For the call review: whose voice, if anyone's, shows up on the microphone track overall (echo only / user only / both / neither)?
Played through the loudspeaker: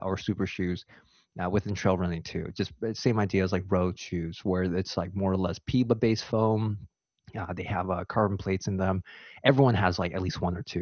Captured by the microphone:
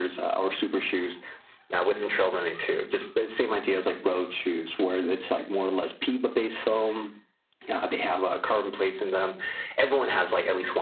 echo only